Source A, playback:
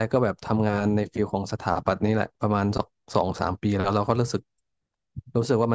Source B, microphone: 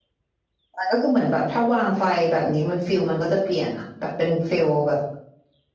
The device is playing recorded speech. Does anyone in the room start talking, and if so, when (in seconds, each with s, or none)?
0.8 s